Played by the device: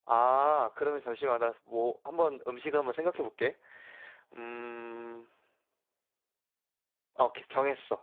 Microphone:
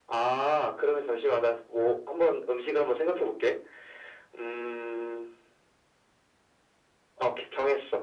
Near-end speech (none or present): none